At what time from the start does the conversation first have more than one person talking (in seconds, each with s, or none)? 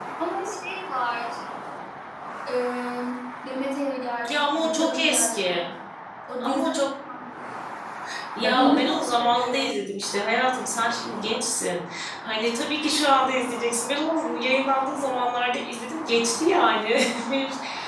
4.2 s